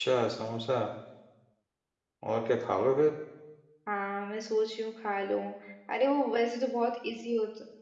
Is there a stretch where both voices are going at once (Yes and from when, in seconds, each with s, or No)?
No